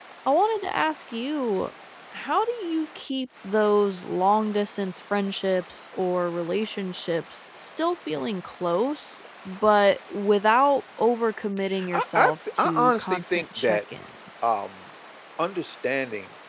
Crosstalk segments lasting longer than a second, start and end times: 11.9-13.8

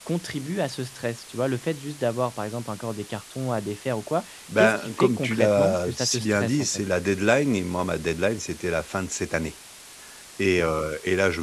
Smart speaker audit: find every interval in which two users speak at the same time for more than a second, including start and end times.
4.6-6.7

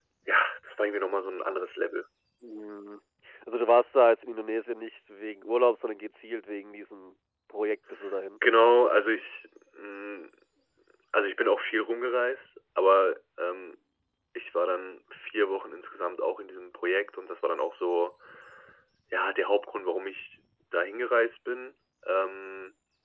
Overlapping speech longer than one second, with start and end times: none

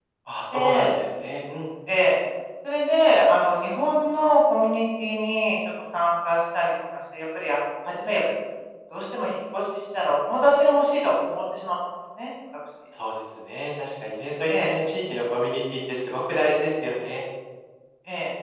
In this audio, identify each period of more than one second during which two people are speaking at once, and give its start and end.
none

